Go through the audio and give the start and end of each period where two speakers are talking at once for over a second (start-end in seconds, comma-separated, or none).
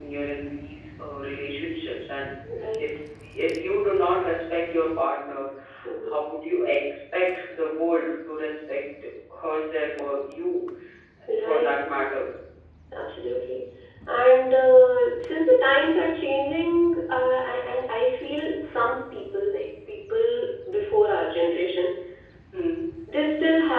none